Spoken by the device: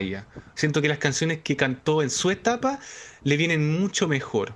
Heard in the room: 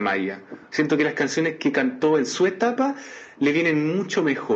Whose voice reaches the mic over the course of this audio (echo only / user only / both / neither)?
echo only